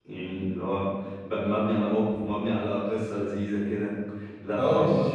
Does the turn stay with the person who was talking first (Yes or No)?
No